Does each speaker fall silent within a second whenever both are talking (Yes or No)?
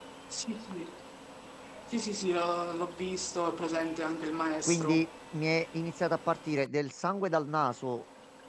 Yes